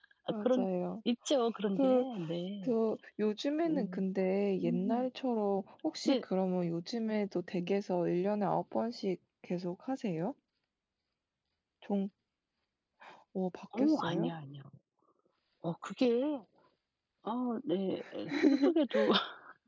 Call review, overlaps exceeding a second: none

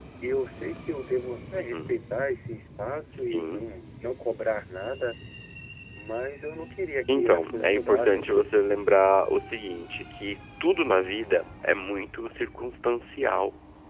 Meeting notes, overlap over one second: present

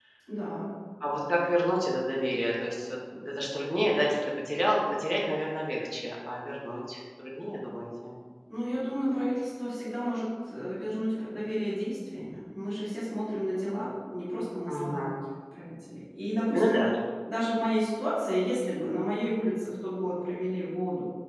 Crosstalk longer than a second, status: none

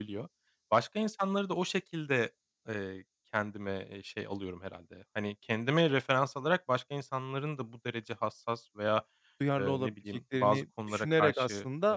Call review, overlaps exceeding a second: present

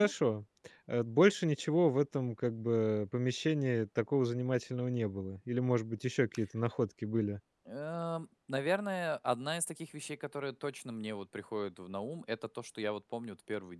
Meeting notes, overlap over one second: none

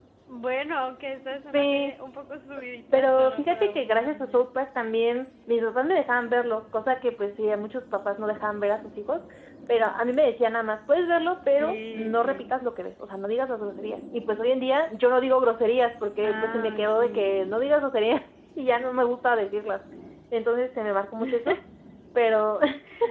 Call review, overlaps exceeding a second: present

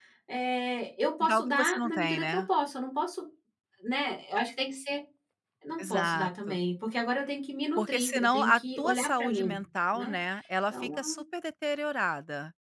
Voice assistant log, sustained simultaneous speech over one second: present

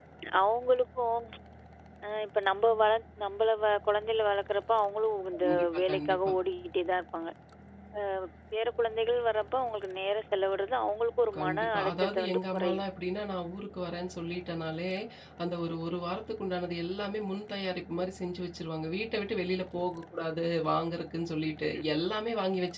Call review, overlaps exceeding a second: present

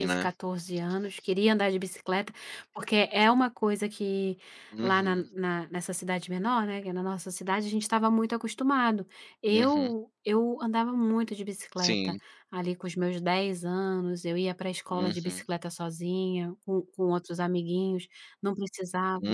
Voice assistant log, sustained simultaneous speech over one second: none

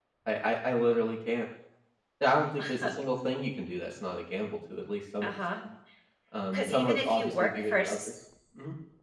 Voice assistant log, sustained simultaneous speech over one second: present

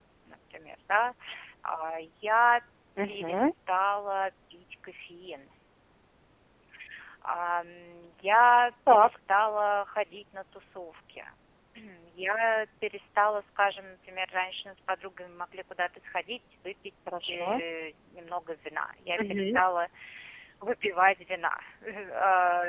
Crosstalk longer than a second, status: none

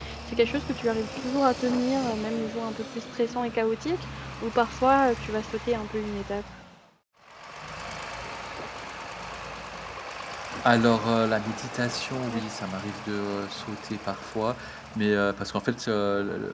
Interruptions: none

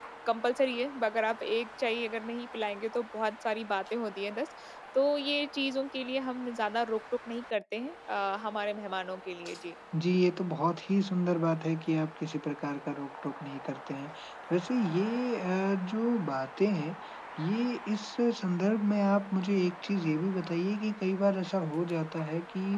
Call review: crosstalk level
none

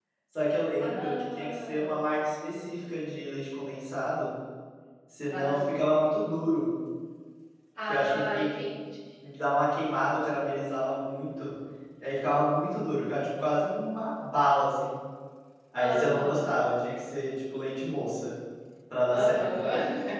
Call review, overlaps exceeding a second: present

